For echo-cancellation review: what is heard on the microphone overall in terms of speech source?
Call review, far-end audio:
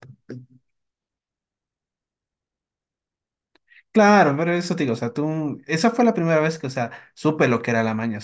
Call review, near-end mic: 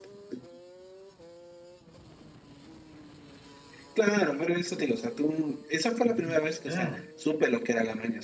both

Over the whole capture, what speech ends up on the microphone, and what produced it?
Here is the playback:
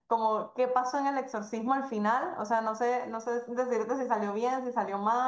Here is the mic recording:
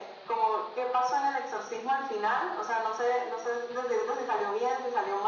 echo only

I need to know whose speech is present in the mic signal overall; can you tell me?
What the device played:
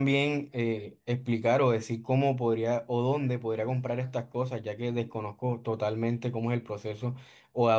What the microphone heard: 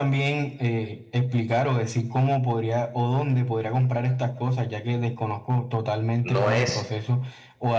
both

